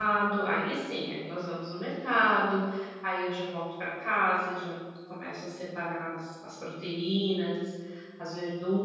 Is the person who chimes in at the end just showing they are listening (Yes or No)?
No